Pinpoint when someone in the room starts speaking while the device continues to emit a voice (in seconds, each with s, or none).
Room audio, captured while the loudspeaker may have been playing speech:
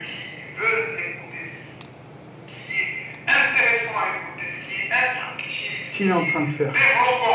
5.8 s